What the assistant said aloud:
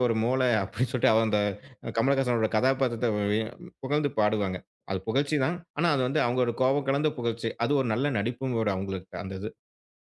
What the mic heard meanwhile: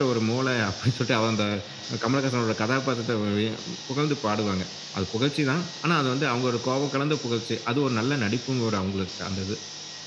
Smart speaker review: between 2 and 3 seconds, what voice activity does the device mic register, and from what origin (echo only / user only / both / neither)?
echo only